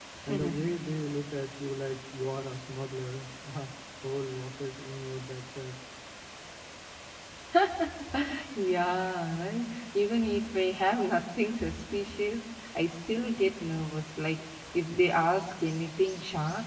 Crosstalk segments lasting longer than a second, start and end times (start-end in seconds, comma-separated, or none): none